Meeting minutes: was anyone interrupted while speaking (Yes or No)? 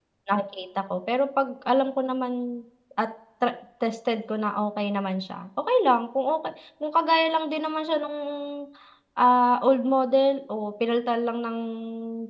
No